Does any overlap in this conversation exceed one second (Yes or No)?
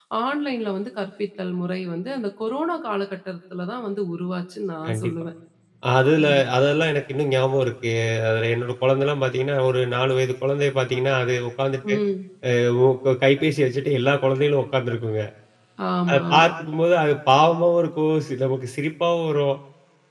No